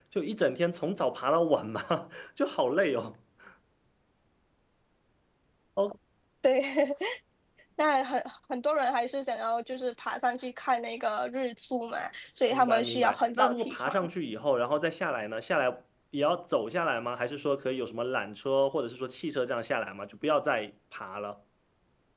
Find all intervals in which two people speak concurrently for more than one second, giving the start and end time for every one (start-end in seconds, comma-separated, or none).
12.5-13.9